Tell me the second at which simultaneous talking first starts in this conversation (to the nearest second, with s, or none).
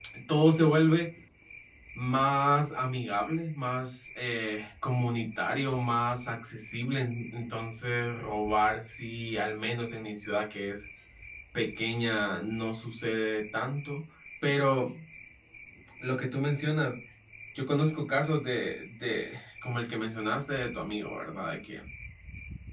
none